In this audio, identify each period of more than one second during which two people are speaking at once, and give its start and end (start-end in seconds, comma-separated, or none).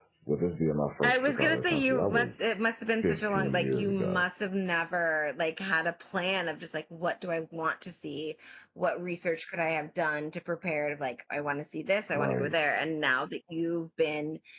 1.0-2.5, 3.0-4.2